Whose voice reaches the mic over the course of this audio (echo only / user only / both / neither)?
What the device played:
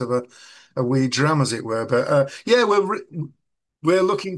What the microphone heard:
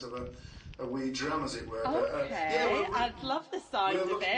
both